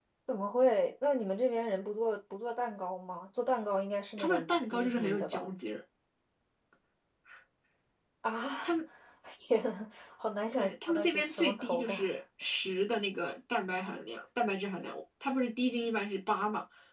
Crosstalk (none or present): present